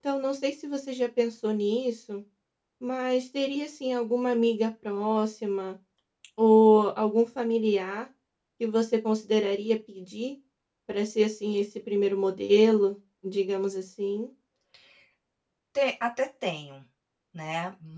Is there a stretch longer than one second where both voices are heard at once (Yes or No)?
No